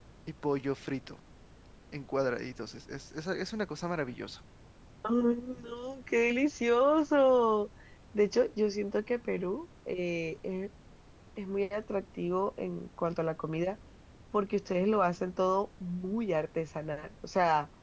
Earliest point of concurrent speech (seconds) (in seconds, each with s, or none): none